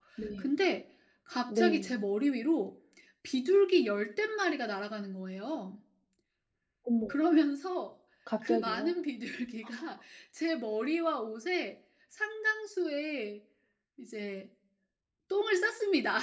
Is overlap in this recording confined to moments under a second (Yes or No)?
Yes